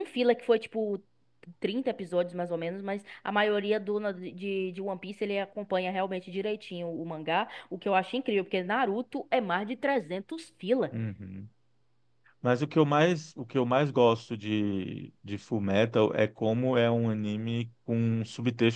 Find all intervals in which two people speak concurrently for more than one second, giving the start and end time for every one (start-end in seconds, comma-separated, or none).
none